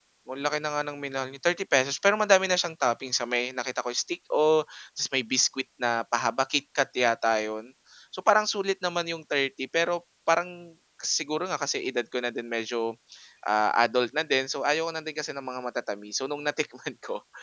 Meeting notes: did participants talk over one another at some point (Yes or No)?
No